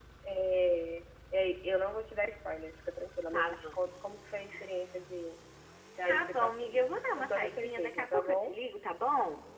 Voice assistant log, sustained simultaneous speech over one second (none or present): present